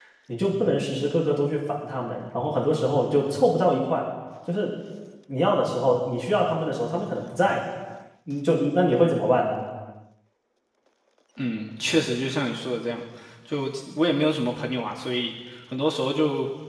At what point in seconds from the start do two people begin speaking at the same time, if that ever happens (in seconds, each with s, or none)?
none